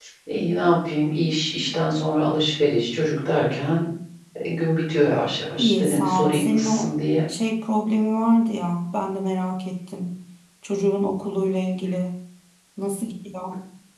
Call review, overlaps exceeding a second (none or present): present